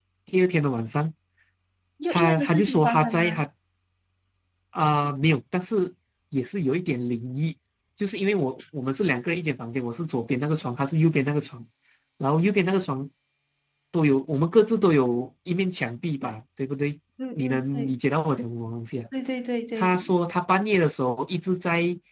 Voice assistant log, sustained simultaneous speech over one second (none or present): present